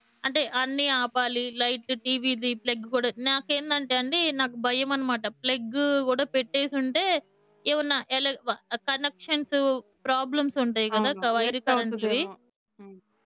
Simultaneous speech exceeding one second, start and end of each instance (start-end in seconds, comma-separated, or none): 10.9-12.2